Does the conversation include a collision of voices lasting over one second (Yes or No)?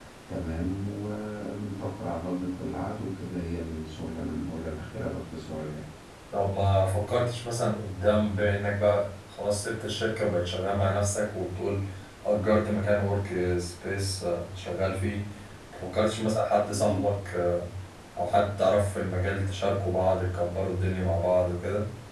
No